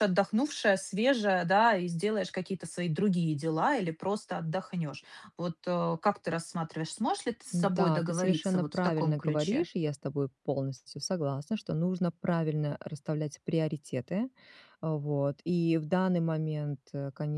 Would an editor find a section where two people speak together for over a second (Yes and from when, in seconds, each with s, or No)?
Yes, from 7.5 s